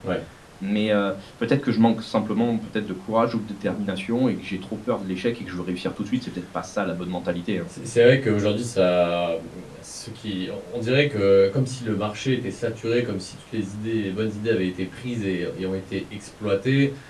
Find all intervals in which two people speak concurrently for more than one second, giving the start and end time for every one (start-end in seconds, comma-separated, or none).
none